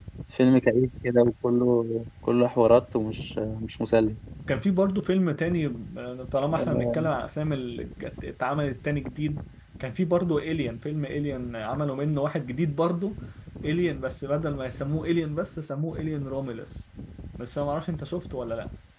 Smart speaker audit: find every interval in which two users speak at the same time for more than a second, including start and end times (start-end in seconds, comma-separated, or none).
none